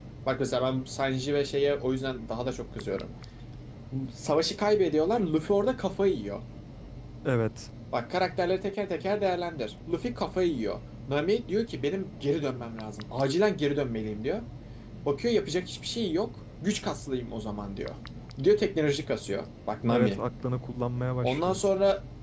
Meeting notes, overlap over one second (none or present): none